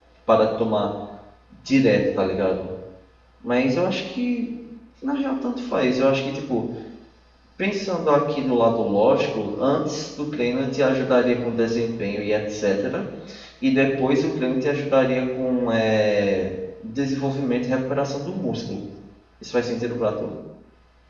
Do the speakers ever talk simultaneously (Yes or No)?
No